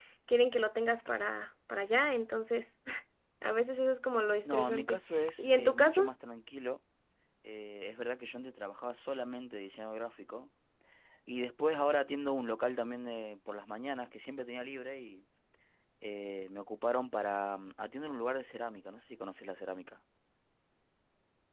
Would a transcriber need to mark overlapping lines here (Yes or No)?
Yes